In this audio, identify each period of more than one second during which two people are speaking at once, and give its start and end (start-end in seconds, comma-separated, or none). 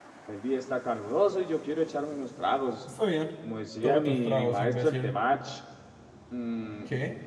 3.8-5.2